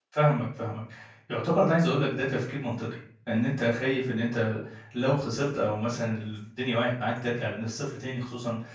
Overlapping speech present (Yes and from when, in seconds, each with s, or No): No